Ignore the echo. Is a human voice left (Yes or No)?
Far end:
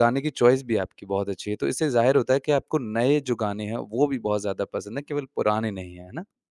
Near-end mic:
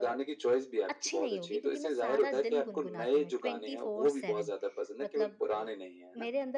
Yes